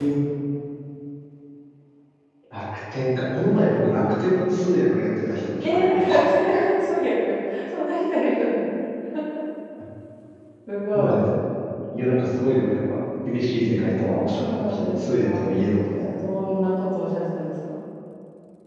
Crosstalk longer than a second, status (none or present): present